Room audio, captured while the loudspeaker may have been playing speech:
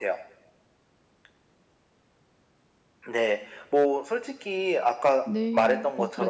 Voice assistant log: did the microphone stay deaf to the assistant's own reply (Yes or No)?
No